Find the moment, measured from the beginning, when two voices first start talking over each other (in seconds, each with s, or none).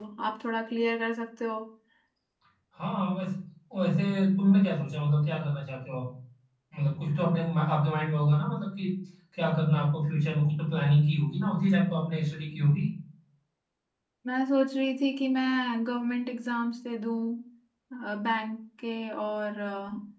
none